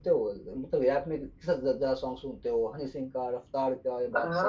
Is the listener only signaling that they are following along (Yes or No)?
No